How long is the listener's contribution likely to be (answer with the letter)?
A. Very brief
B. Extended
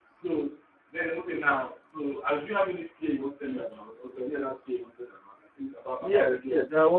B